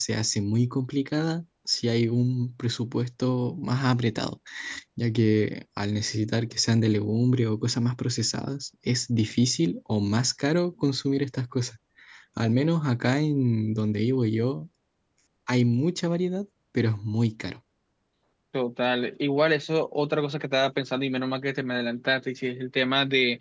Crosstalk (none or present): none